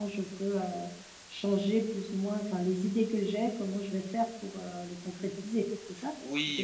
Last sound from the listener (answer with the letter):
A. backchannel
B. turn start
B